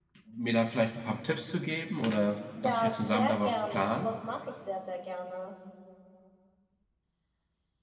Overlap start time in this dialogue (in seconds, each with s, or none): 2.6 s